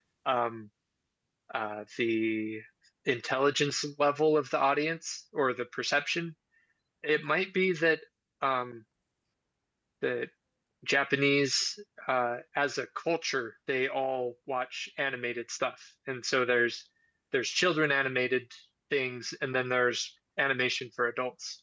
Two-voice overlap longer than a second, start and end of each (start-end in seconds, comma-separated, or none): none